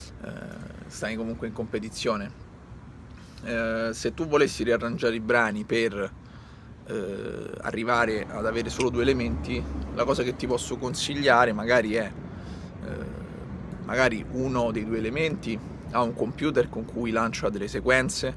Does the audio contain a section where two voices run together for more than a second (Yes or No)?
No